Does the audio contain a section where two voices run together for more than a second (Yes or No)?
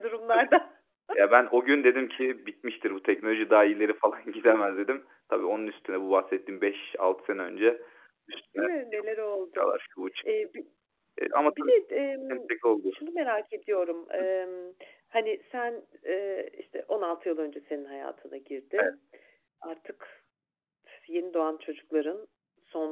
No